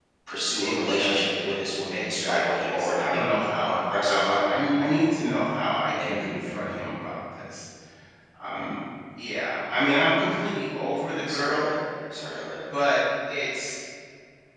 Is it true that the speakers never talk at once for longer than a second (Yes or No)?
No